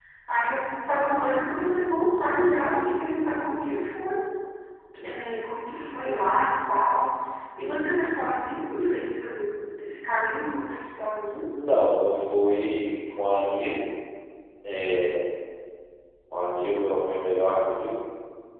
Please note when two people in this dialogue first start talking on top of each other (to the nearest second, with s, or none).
none